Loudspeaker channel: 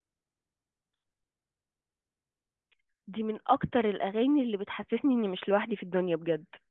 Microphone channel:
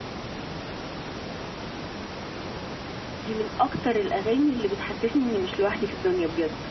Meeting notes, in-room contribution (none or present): none